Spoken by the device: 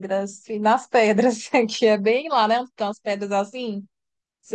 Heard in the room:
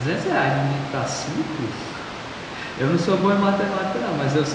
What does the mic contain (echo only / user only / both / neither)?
user only